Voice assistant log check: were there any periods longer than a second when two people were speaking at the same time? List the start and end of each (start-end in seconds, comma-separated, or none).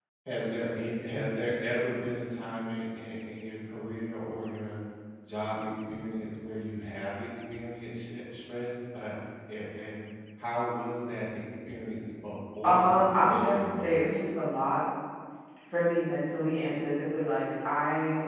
12.6-14.0